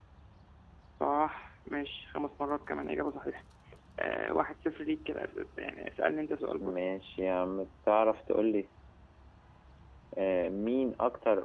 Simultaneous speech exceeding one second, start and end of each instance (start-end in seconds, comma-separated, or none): none